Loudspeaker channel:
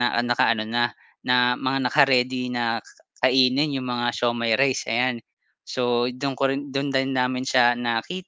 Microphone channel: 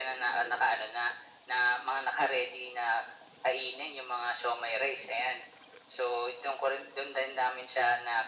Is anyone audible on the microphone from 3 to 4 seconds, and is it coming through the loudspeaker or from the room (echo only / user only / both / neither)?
echo only